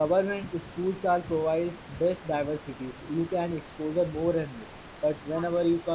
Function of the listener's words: listening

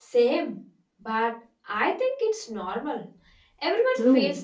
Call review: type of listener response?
taking over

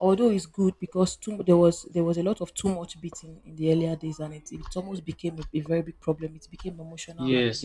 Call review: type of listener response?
taking over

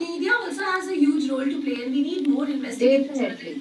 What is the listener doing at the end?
listening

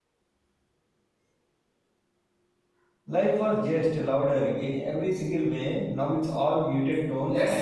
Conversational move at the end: taking over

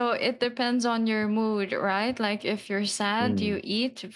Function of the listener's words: listening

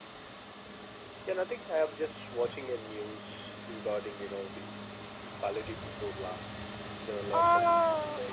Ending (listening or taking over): taking over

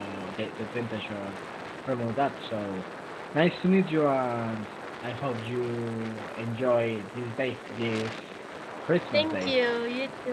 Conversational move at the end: taking over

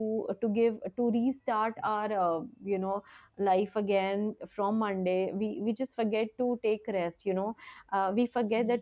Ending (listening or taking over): listening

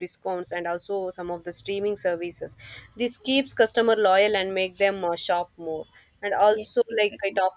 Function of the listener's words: listening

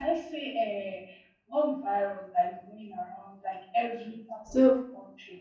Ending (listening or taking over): listening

